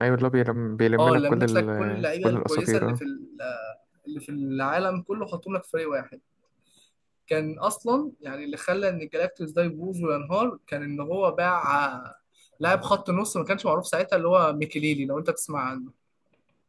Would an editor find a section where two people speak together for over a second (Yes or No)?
Yes